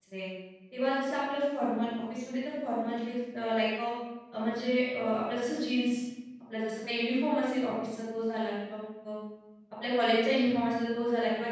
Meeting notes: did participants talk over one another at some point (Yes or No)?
No